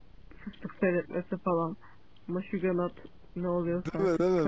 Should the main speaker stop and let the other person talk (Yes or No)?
Yes